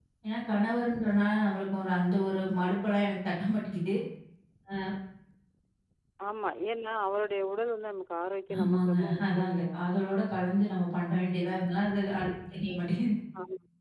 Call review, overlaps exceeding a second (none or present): present